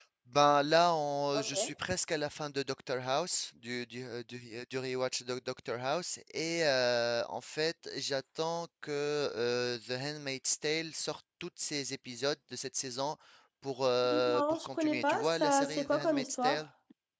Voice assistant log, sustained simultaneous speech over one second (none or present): present